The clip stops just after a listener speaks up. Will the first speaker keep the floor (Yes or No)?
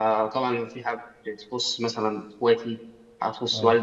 Yes